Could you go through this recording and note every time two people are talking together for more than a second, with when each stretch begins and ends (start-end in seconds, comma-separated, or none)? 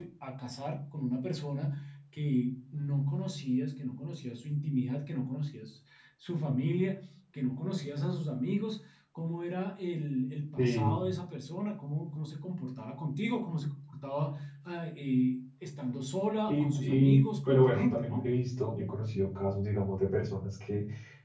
16.5-18.3